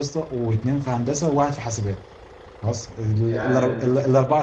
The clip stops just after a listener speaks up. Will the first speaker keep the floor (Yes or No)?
Yes